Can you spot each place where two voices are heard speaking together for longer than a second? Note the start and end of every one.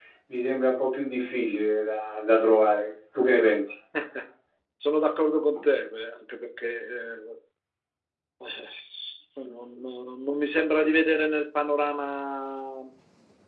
none

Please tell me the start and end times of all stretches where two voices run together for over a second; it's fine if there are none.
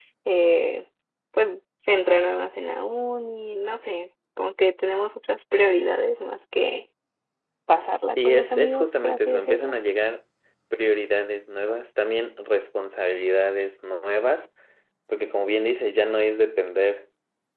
8.2-9.7

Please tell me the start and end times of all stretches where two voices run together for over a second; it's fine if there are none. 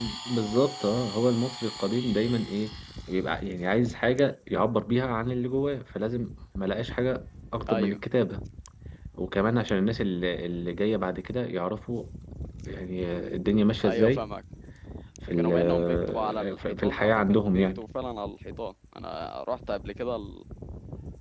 15.4-17.8

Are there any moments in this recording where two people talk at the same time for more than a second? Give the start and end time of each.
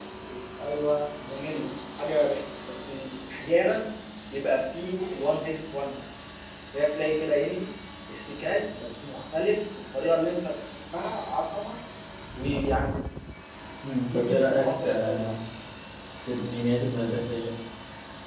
14.0-15.2

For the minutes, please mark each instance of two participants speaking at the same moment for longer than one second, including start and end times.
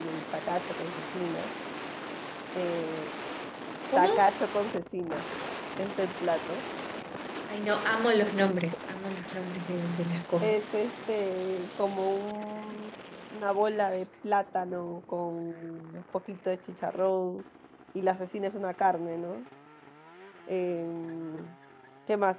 none

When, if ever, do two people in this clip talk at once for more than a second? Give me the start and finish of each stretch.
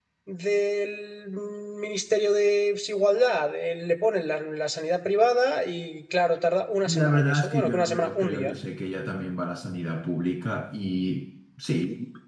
6.8-8.5

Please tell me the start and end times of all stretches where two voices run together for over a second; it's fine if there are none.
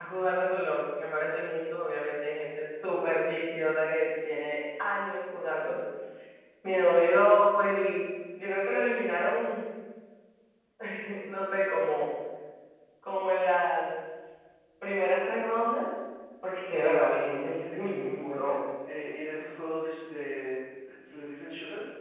17.2-18.6

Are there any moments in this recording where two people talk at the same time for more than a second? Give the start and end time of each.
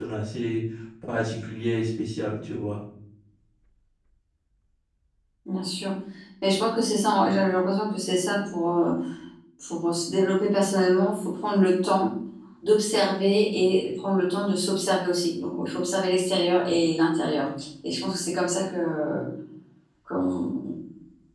none

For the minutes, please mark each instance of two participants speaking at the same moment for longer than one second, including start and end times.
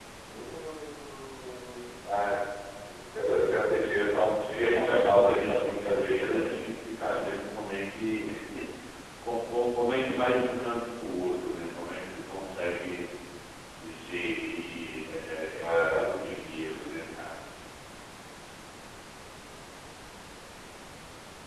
4.6-6.7

